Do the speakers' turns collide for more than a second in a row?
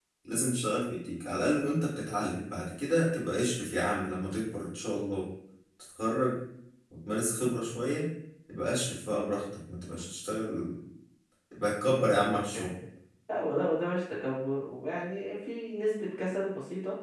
No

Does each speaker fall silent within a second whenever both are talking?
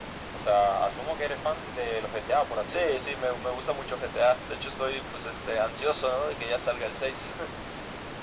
Yes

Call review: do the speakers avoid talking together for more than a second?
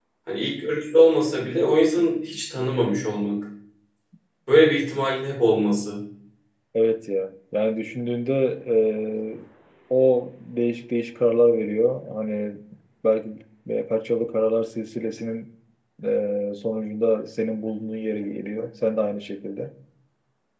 Yes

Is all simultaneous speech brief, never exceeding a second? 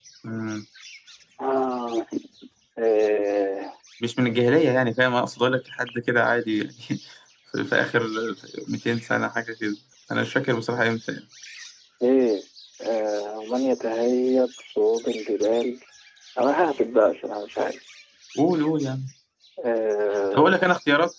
Yes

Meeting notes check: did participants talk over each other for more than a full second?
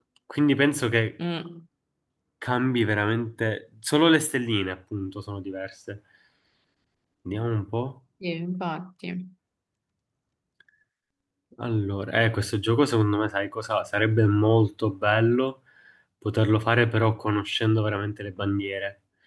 No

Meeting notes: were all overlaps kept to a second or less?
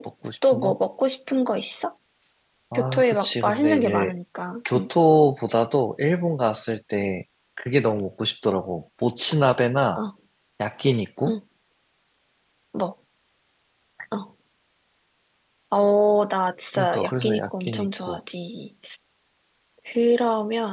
No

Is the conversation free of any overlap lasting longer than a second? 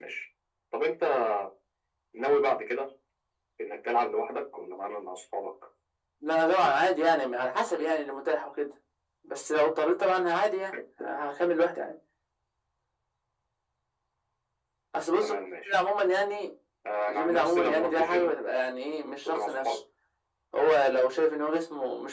No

